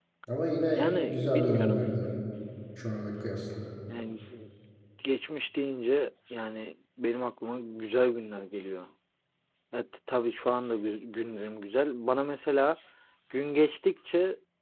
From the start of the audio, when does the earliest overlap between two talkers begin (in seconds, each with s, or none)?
0.7 s